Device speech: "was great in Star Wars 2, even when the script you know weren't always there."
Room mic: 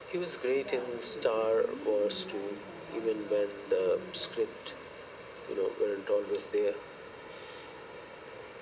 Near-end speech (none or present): present